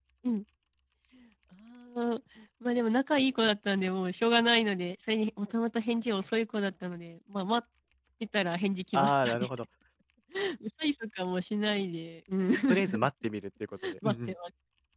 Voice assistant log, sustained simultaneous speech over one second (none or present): none